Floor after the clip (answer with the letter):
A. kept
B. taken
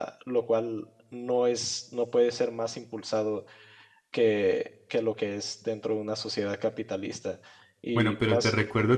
B